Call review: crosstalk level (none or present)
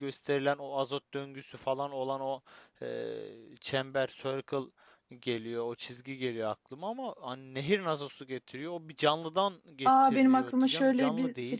present